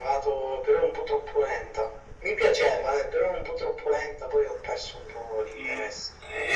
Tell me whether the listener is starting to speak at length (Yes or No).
Yes